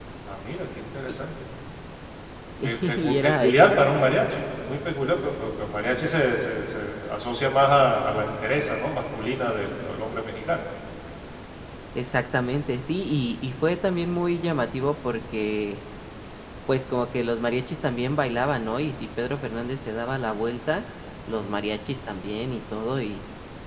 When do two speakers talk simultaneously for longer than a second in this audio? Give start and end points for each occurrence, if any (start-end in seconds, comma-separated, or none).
2.6-4.0